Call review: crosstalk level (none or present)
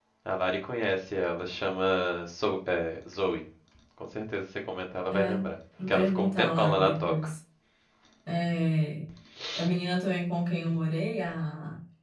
present